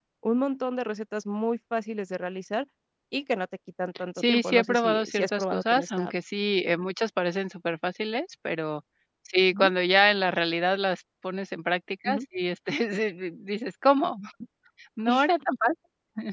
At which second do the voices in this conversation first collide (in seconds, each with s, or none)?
4.2 s